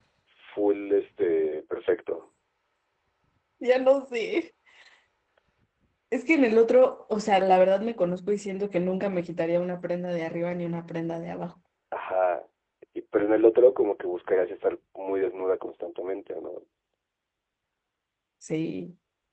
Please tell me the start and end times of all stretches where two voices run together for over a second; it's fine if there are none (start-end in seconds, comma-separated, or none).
none